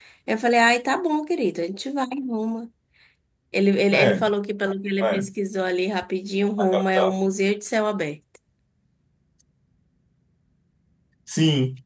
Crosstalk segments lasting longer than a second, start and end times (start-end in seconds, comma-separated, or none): none